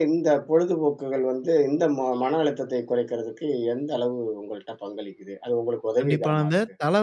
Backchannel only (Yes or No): No